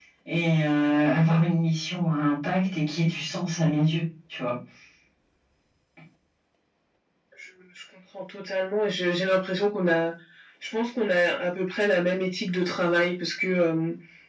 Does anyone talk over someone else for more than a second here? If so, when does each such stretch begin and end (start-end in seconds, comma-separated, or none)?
none